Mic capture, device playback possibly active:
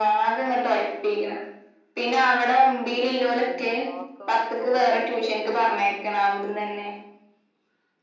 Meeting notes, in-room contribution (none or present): present